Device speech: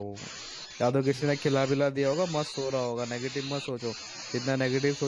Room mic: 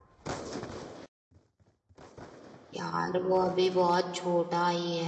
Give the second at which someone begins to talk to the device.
2.7 s

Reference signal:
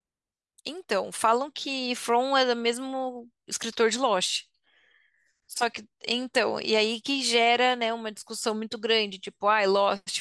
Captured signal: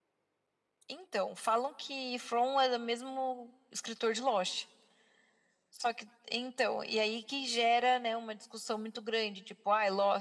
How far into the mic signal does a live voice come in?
none

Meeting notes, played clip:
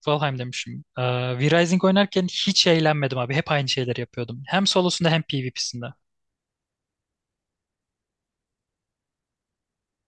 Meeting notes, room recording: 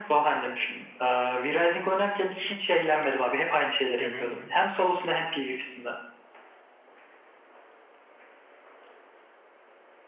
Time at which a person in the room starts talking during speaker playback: 4.0 s

